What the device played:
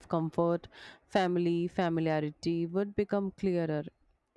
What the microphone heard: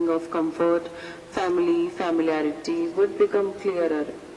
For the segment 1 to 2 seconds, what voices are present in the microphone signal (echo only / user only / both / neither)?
echo only